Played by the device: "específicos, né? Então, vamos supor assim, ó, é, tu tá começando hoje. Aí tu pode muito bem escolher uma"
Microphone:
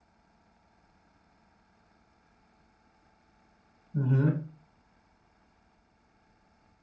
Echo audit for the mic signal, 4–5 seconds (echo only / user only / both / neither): user only